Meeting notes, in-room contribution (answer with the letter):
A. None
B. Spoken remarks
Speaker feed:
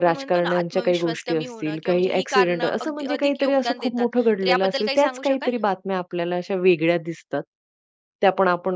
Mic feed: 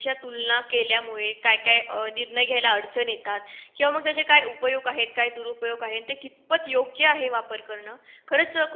B